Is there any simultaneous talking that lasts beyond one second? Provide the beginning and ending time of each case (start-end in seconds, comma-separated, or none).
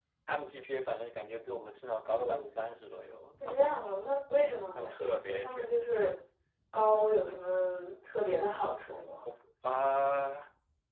4.4-5.7